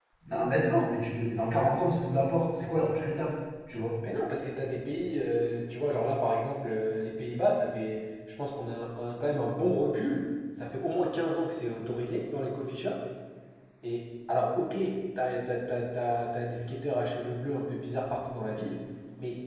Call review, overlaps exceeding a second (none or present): none